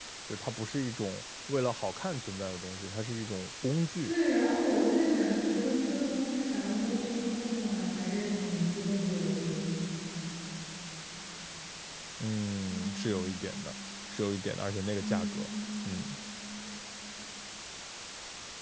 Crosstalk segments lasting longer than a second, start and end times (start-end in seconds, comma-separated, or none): none